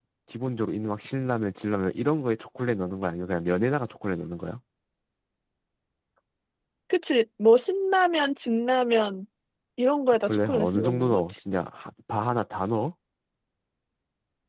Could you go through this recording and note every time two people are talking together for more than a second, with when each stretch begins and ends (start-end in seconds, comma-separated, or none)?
10.2-11.4